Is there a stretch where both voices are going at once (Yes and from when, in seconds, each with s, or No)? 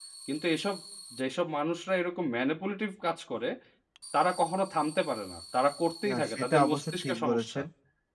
Yes, from 6.0 s